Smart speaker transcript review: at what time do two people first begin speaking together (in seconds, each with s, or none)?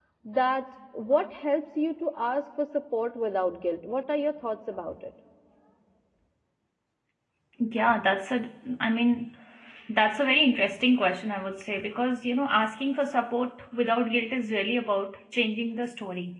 none